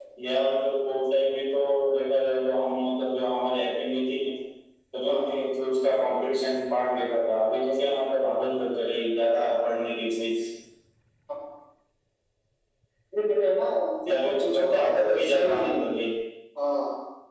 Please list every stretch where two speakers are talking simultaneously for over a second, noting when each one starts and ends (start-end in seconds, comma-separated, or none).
14.1-15.6